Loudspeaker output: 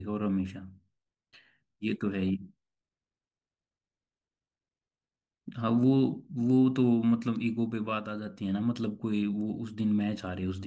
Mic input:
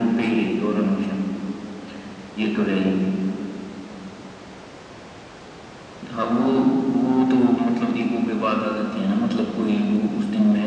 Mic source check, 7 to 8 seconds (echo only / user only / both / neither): echo only